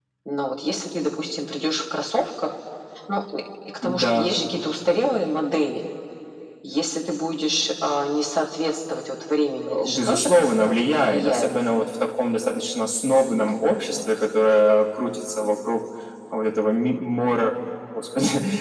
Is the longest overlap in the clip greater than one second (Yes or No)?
Yes